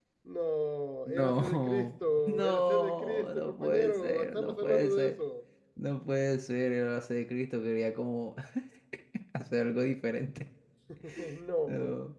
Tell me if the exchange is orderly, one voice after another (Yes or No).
No